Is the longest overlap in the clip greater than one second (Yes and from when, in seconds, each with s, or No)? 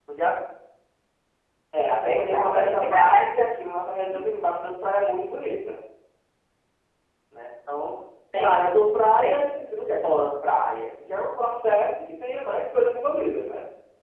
Yes, from 2.0 s